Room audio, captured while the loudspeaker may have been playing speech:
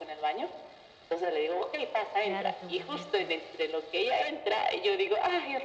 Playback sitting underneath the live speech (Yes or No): No